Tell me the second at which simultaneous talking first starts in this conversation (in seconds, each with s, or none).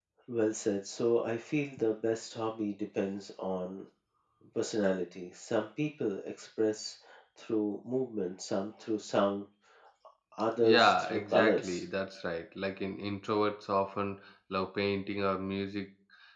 10.6 s